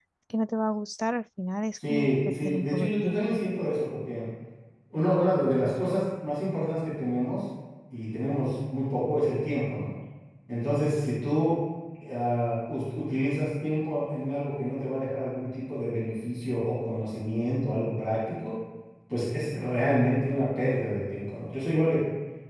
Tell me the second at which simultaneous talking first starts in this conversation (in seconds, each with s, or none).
1.8 s